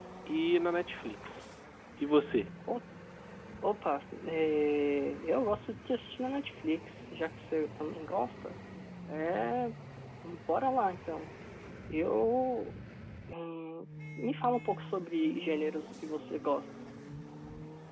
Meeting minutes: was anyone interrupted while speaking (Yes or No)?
No